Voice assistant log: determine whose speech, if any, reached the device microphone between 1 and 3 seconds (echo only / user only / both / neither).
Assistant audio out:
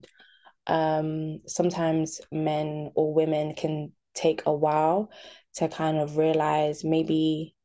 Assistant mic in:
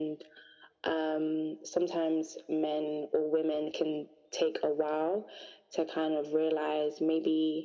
echo only